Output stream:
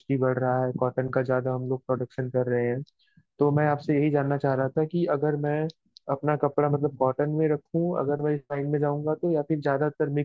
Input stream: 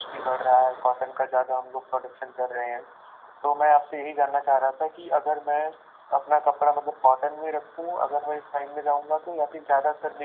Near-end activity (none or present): none